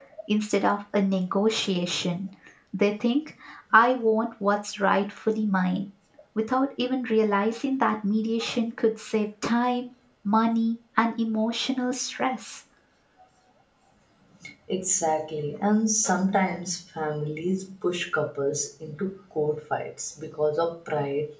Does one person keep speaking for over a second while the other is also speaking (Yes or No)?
No